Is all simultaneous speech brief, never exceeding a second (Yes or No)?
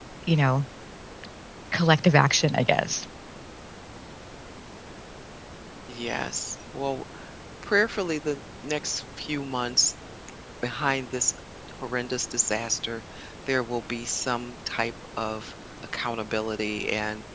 Yes